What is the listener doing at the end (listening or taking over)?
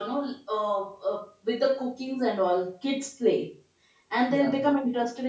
listening